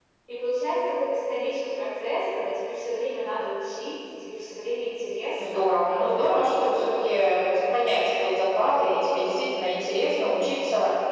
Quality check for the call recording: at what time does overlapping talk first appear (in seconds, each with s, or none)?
5.4 s